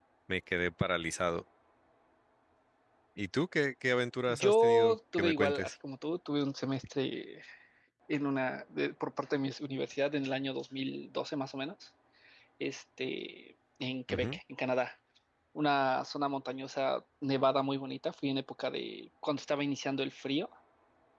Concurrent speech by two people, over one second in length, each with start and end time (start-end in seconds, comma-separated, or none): 4.3-5.7